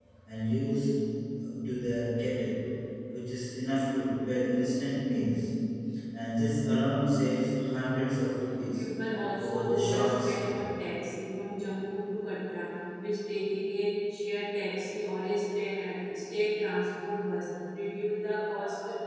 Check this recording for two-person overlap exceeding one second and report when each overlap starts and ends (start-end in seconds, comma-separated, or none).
9.4-10.6